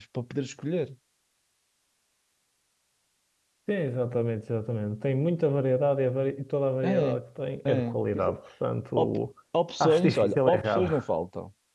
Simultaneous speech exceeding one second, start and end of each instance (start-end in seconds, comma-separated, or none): 9.8-11.0